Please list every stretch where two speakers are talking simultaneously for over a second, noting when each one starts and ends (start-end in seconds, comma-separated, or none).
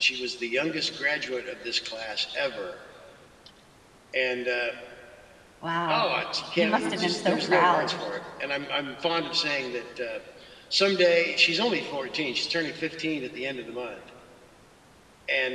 6.6-8.0